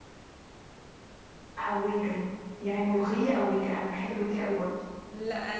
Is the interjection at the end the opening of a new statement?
Yes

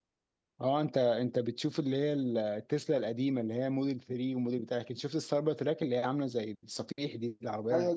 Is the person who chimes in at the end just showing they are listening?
No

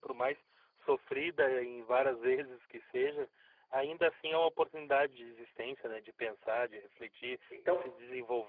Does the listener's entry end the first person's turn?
No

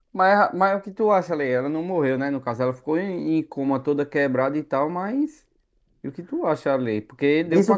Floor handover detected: Yes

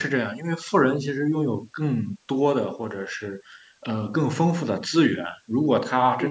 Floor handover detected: No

